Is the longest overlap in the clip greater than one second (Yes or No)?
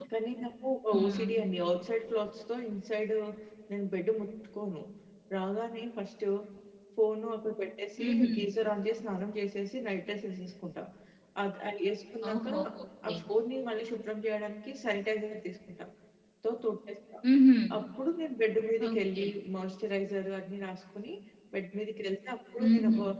No